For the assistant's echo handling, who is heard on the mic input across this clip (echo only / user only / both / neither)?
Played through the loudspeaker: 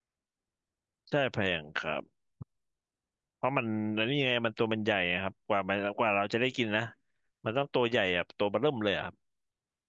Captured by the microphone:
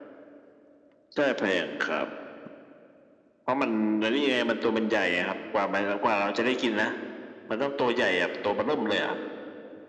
echo only